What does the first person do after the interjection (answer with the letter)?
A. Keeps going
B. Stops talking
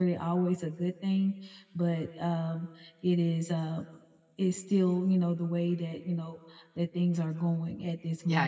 B